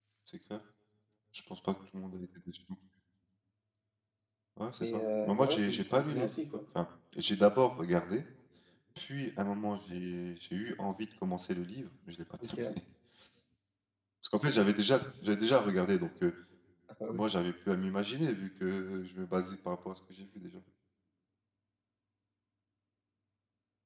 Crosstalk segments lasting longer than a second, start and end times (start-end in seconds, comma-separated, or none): 4.8-6.6